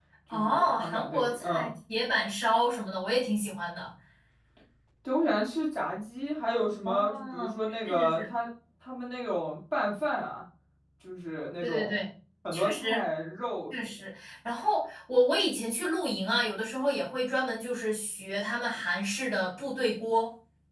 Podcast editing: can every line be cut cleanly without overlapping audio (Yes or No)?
No